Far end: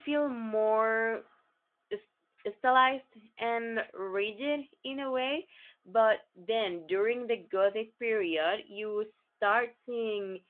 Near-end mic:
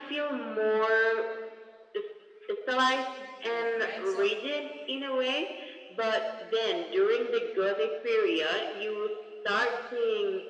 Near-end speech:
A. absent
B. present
B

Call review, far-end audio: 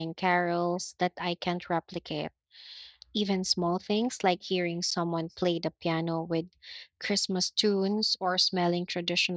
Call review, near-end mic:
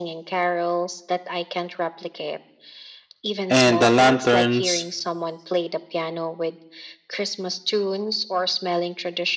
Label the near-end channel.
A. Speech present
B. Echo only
A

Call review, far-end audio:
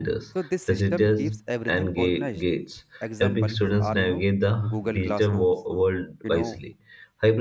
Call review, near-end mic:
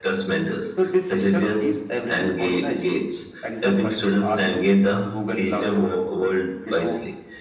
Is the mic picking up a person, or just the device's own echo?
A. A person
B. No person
B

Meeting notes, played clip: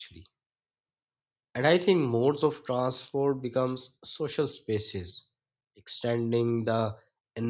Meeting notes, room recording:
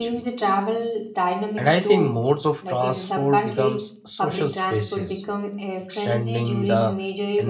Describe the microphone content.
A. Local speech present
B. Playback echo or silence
A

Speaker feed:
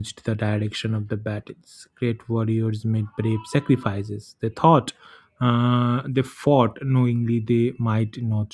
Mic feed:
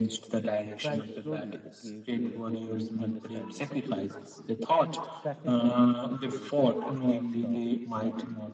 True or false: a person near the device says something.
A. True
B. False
A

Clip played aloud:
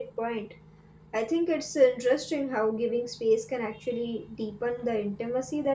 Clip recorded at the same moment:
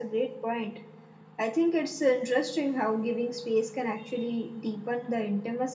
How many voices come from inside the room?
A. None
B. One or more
A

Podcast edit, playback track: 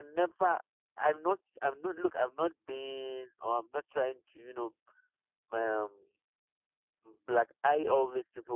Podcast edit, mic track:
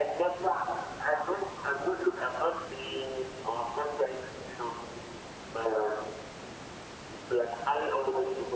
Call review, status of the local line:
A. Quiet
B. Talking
A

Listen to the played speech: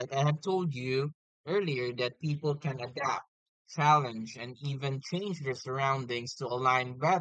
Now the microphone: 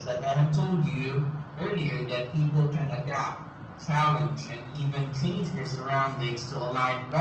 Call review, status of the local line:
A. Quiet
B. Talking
A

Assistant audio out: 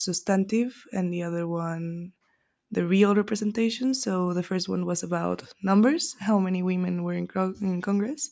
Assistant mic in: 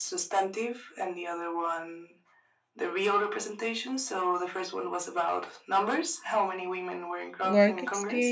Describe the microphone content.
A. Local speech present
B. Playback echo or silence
A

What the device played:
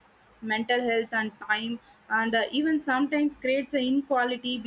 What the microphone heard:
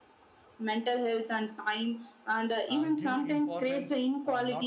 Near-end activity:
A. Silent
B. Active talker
B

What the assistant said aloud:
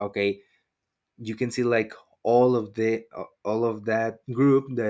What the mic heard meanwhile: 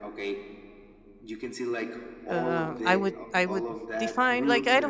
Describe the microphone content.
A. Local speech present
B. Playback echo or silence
A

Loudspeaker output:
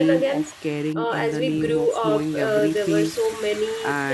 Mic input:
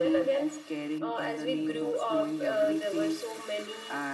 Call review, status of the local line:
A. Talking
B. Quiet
B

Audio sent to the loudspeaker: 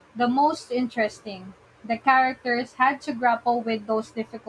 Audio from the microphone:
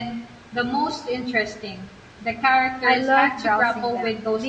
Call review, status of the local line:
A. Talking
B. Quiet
A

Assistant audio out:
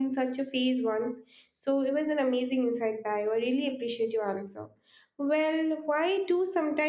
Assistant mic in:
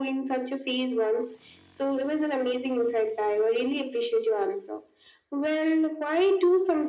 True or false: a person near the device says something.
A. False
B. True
A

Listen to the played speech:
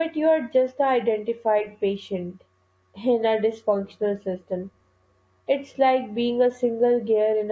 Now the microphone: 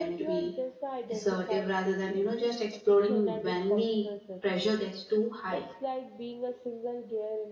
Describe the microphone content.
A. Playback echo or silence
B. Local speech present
B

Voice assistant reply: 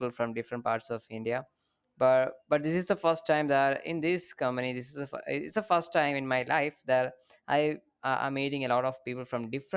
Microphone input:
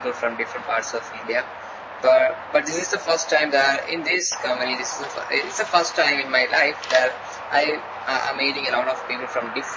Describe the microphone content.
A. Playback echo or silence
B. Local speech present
A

